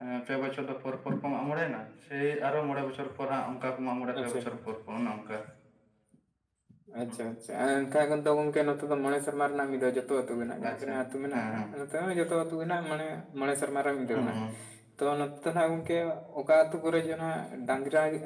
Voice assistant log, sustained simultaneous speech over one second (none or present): none